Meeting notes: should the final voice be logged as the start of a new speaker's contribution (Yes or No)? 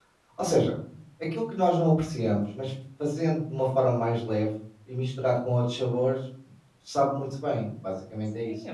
Yes